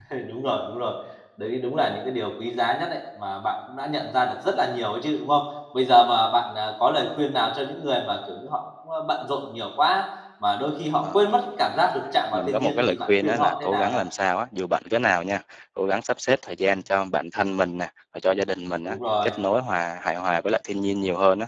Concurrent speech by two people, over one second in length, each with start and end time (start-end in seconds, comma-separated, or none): 12.3-14.0